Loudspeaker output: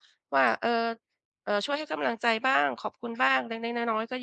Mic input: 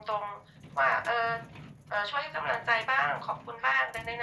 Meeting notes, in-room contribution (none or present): none